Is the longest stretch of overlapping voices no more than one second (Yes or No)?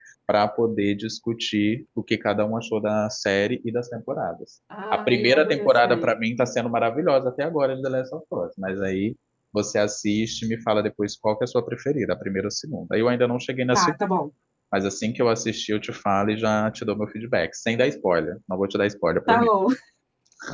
No